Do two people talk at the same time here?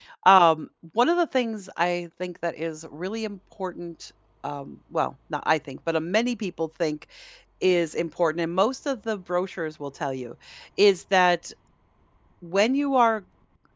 No

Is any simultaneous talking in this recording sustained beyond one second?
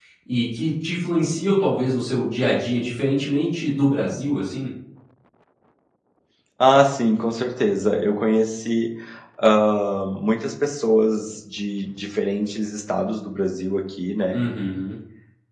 No

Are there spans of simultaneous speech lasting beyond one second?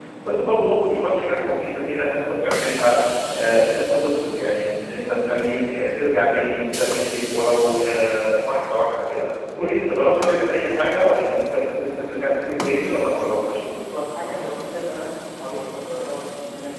No

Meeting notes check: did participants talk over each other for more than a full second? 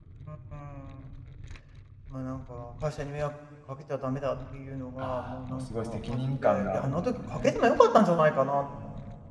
Yes, from 5.0 s

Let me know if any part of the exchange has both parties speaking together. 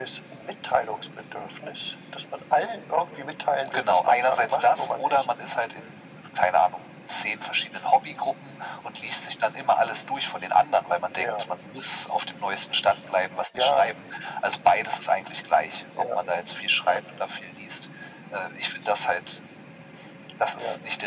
Yes, from 3.7 s

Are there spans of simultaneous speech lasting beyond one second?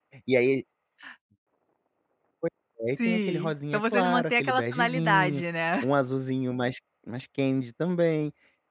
Yes, from 3.0 s

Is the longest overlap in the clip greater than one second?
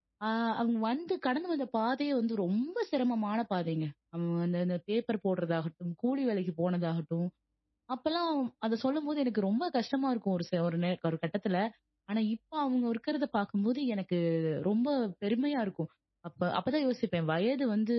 No

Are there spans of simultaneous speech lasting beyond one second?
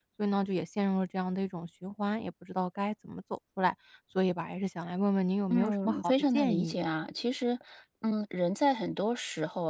Yes, from 5.5 s

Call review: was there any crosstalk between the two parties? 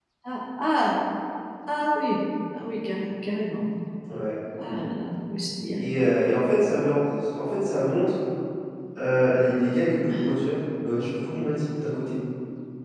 No

